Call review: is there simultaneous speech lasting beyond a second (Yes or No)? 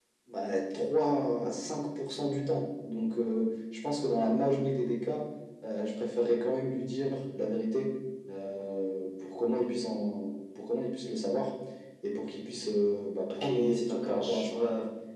Yes